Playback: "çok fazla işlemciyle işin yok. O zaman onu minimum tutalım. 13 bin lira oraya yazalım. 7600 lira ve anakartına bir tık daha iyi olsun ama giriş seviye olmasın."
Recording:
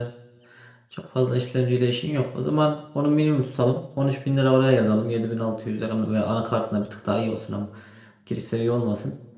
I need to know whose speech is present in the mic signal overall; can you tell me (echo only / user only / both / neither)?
echo only